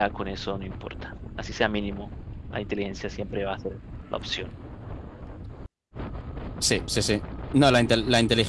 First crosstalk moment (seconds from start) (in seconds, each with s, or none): none